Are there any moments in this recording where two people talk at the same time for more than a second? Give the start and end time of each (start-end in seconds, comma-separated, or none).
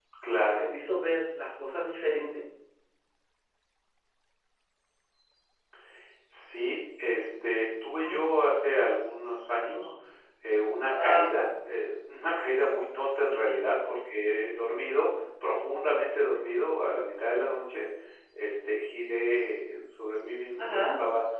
none